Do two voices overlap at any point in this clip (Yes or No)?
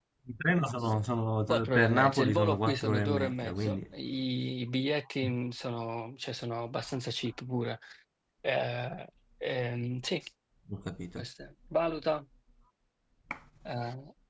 Yes